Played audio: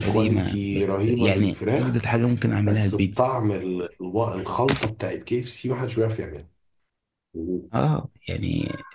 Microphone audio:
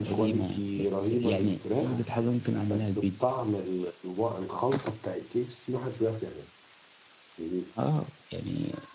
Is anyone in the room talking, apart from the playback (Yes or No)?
Yes